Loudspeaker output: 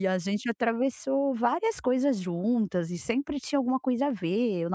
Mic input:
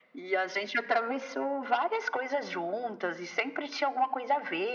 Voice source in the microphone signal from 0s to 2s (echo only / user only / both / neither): echo only